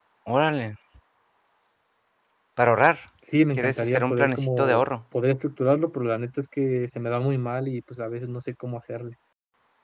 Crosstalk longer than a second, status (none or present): present